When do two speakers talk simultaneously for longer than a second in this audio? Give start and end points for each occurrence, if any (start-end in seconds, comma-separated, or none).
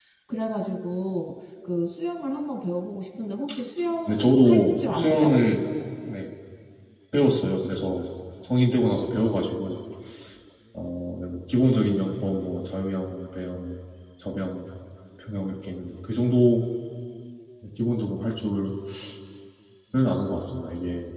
4.1-5.4